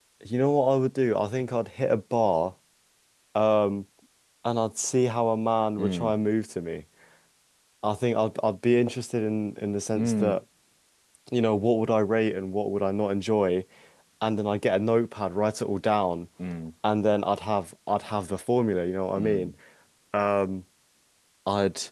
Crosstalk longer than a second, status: none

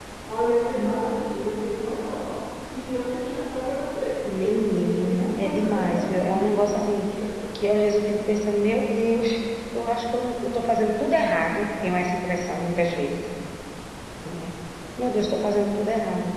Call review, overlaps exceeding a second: present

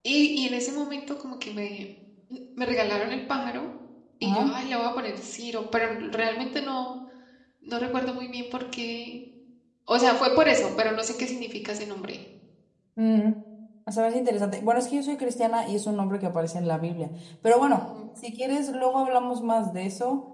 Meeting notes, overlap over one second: none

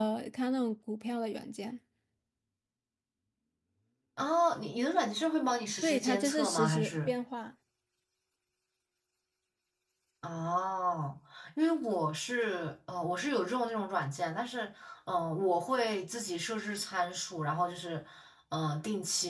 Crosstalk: present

